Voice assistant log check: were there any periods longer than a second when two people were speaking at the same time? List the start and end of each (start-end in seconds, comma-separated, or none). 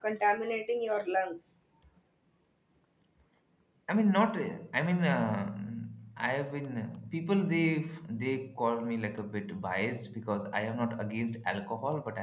none